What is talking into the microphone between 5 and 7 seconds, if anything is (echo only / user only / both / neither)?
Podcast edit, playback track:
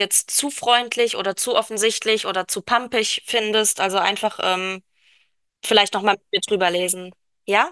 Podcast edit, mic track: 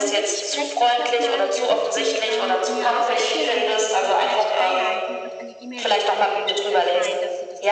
both